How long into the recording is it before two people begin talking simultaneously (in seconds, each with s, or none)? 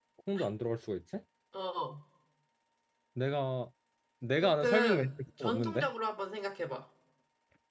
4.4 s